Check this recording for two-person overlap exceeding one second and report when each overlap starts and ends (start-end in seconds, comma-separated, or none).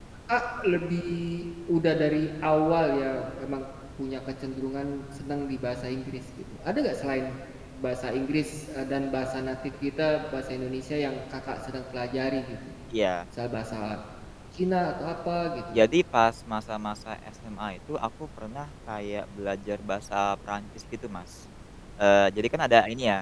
none